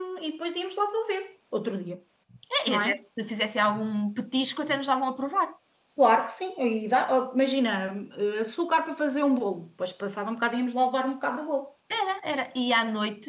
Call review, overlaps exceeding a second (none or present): none